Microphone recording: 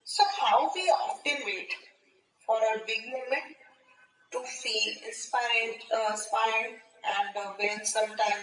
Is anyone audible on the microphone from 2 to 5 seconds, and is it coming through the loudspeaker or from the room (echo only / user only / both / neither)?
echo only